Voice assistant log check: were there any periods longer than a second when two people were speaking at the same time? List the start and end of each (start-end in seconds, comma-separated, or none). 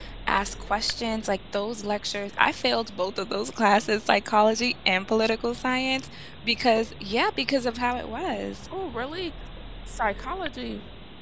none